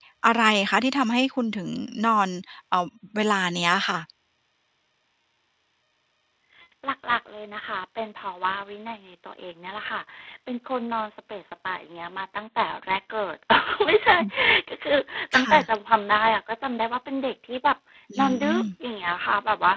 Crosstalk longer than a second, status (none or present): none